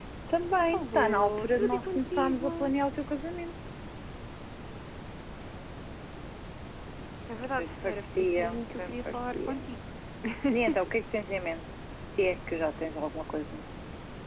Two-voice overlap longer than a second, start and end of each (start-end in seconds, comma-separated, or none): 0.7-2.5, 7.6-9.5